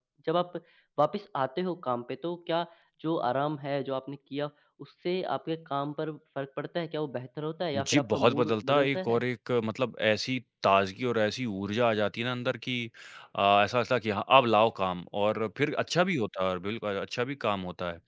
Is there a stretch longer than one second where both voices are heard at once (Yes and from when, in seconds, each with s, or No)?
Yes, from 7.7 s